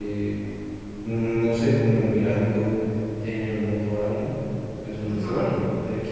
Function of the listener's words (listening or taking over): listening